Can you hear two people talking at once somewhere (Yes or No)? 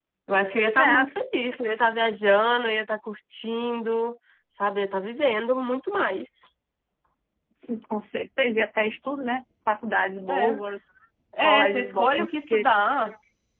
Yes